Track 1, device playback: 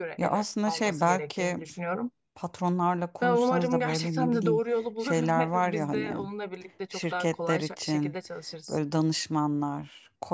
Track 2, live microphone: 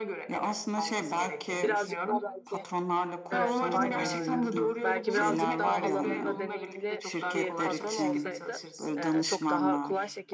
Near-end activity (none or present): present